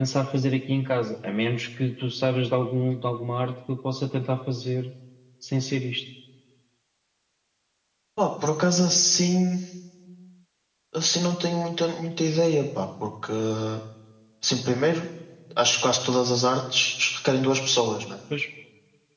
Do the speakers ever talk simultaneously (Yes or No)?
No